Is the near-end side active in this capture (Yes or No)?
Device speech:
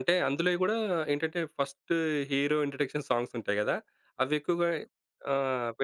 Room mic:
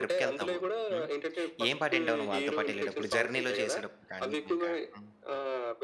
Yes